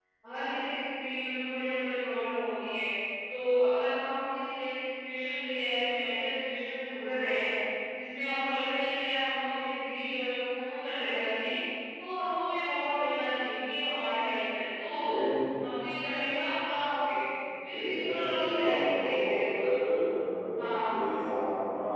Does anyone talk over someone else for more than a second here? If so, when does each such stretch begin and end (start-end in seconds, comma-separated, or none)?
17.7-19.7